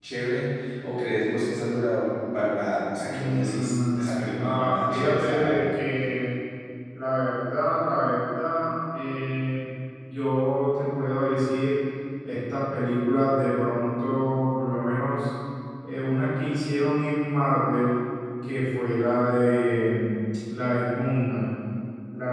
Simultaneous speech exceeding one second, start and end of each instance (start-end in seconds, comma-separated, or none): 3.1-5.6